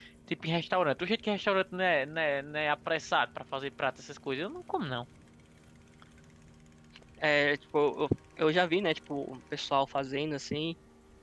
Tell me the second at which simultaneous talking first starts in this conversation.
none

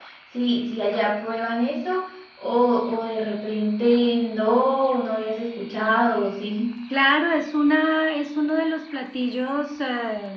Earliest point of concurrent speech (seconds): none

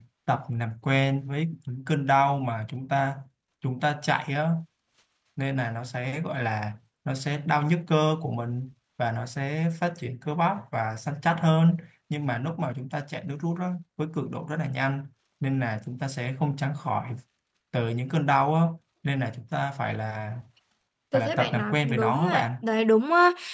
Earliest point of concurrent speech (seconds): 21.1 s

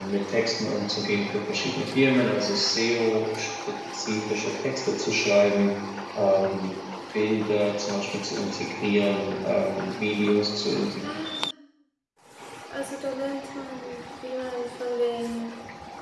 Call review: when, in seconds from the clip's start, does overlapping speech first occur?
none

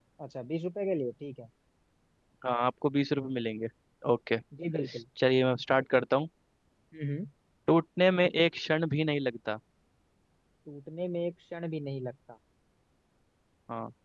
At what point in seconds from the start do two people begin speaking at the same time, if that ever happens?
none

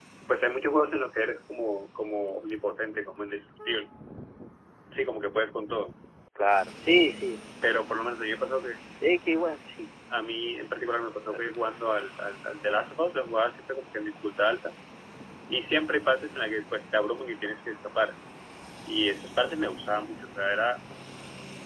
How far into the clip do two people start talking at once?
none

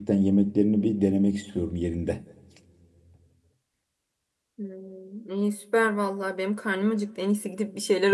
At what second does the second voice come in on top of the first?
none

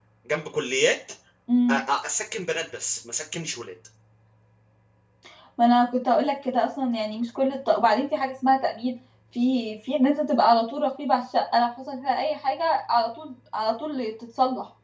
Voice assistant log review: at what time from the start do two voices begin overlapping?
none

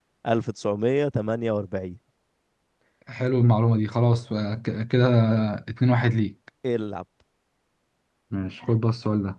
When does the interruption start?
none

